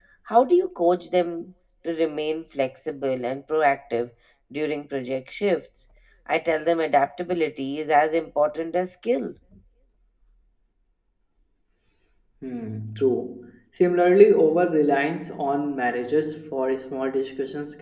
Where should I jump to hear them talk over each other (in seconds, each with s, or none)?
none